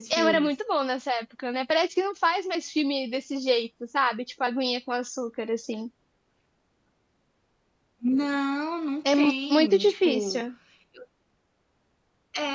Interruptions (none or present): present